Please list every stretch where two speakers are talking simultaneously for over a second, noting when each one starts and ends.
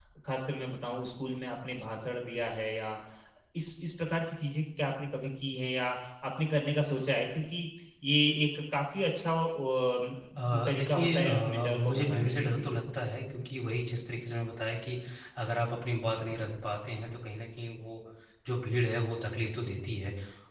10.5-12.7

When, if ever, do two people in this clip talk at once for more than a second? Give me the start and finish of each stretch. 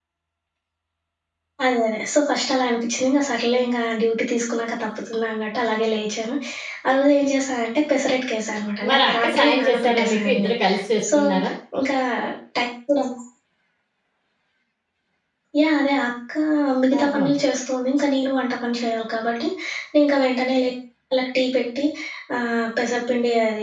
8.9-10.5

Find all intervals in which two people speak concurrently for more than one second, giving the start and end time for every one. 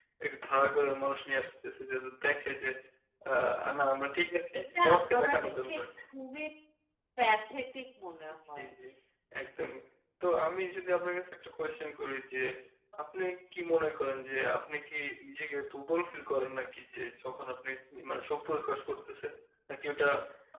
4.6-5.8

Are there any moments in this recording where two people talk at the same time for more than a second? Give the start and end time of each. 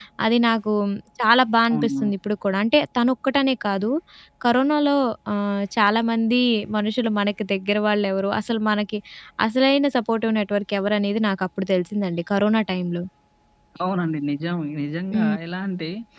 none

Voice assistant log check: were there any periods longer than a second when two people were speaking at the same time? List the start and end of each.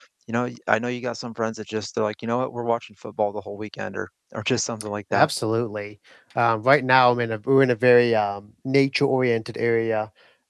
none

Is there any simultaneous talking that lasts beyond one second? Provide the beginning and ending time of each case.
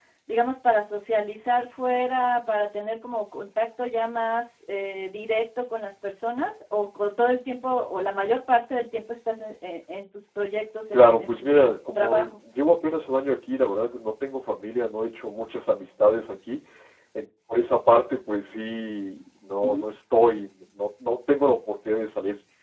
10.9-12.3

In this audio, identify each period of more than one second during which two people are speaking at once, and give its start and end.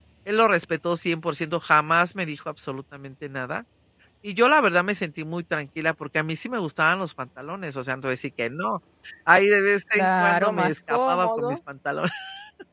9.9-11.6

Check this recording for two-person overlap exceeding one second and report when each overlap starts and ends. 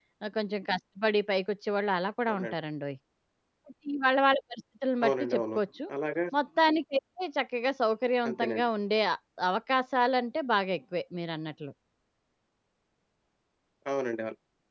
none

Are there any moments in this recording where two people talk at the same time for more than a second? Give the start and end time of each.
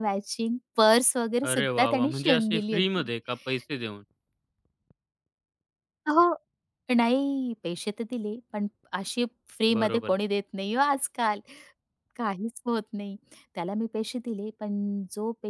1.5-3.1

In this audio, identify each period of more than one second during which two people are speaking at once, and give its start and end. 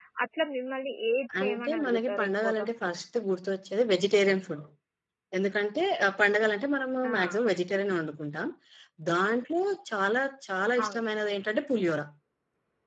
1.4-2.7

